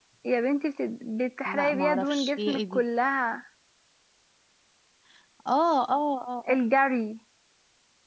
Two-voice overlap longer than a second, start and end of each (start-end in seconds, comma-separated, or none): 1.4-2.8